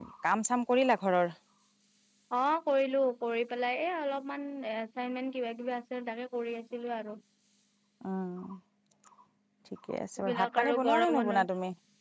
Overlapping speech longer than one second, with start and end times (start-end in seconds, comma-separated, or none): 10.2-11.5